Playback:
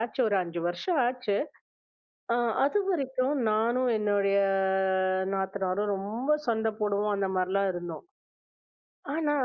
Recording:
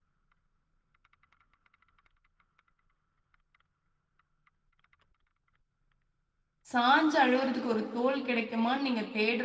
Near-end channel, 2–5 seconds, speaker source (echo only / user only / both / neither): neither